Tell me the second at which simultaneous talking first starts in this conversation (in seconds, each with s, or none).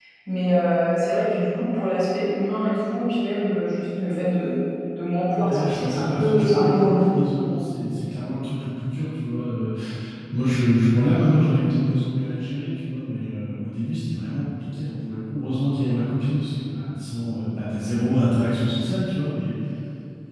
5.4 s